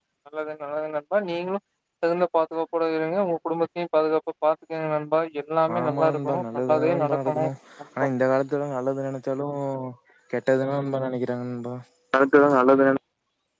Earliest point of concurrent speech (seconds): 6 s

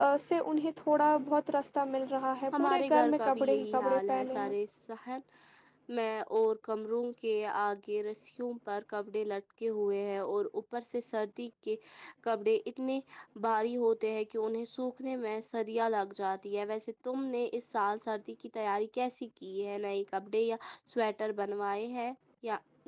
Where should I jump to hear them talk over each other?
3 s

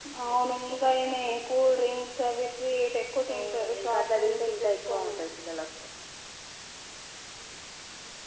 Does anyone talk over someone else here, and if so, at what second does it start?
3 s

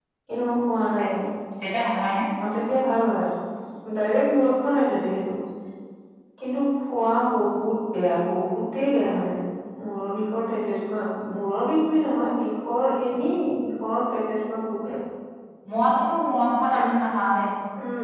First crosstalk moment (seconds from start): none

